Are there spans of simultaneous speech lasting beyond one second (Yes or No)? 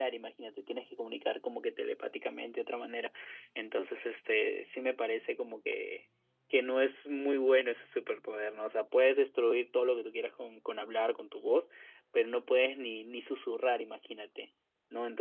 No